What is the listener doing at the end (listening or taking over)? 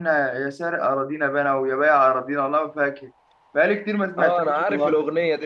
taking over